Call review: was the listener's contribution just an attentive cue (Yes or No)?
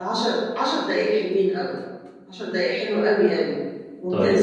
Yes